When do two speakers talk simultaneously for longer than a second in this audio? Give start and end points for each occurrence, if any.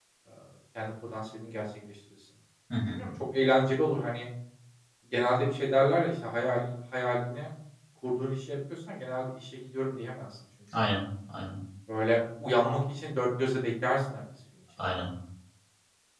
none

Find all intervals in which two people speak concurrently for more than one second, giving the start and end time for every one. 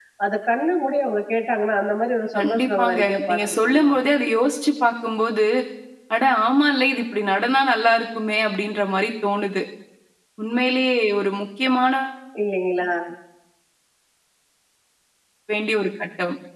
2.4-3.9

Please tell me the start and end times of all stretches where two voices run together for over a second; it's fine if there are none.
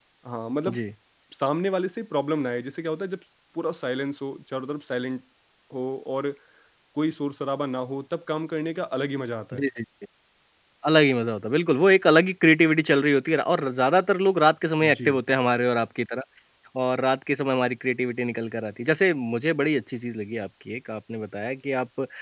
none

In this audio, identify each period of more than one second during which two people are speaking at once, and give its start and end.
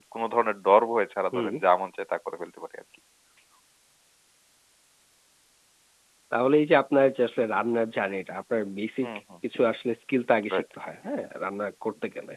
none

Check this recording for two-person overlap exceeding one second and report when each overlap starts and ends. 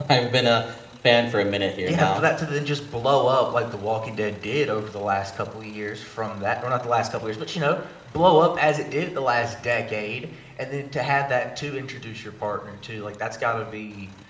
none

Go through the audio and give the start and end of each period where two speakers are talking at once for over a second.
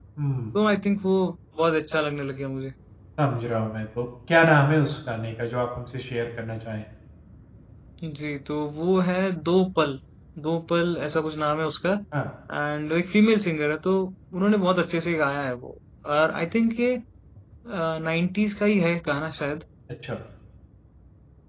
none

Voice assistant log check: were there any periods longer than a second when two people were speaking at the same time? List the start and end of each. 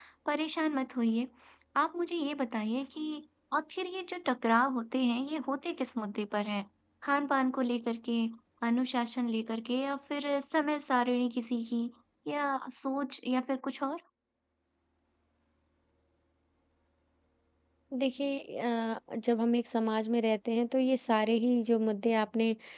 none

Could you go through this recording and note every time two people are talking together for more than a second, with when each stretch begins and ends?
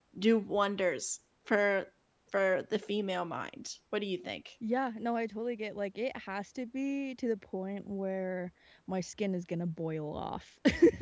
none

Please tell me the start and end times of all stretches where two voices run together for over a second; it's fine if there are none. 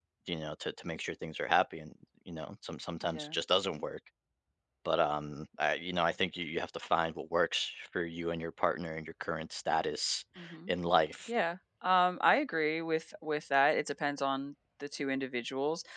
none

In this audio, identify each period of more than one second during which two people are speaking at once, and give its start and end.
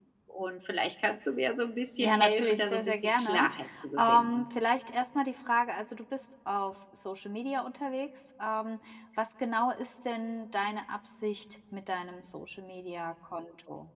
2.0-3.5

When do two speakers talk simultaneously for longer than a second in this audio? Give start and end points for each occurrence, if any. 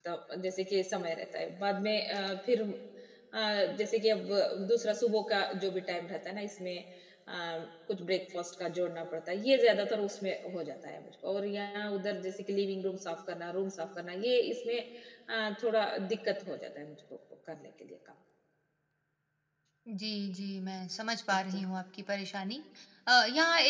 none

